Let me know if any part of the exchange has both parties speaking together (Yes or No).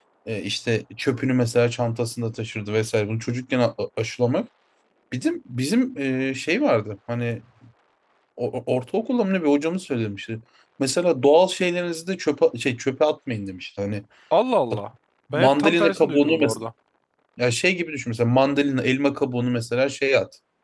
Yes